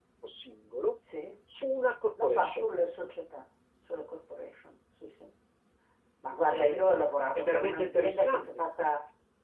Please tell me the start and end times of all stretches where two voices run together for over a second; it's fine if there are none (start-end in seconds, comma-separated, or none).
7.3-8.6